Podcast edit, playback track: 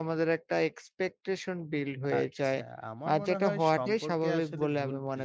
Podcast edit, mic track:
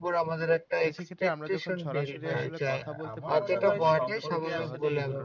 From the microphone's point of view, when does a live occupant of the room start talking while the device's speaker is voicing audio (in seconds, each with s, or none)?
0.8 s